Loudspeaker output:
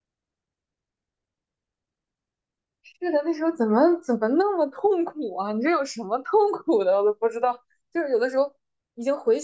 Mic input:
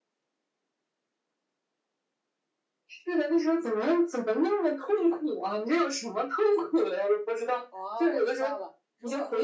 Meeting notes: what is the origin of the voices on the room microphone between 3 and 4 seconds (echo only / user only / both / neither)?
echo only